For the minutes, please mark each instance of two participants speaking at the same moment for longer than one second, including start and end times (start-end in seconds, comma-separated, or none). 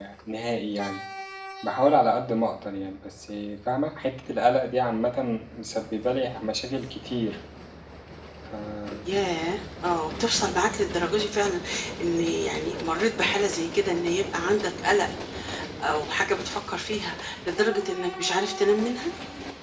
none